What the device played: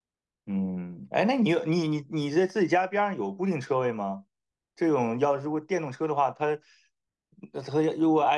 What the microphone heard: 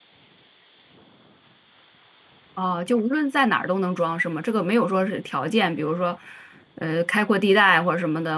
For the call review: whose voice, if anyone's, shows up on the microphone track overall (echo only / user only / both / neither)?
user only